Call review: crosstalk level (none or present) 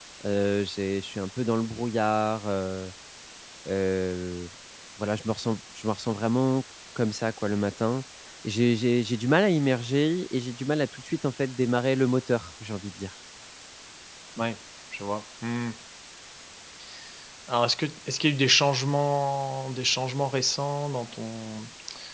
none